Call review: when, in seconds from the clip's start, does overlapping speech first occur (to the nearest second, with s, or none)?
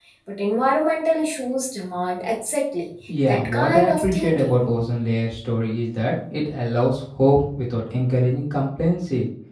3 s